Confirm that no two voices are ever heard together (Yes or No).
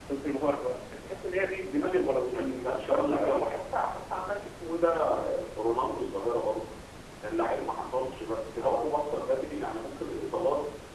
No